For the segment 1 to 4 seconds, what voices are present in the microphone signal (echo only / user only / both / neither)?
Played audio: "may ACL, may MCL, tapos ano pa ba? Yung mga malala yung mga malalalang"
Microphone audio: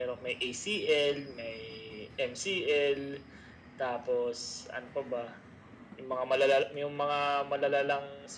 echo only